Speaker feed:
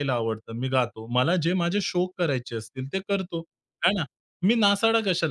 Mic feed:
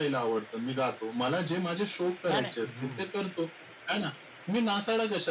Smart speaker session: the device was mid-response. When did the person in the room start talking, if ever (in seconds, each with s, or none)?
2.2 s